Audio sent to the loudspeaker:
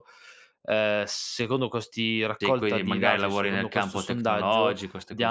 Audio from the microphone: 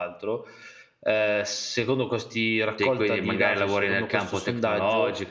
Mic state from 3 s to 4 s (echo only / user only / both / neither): echo only